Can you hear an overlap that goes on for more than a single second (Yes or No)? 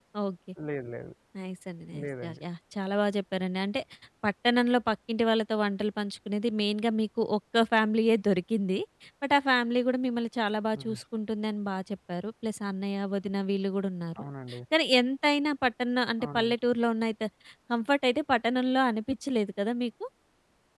No